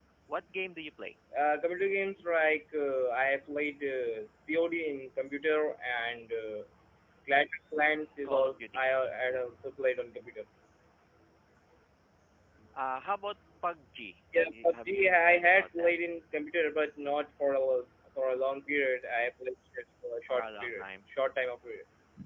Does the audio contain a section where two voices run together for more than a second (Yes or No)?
Yes